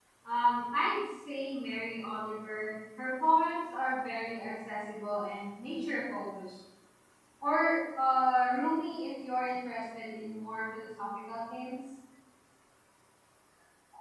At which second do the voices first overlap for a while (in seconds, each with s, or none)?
none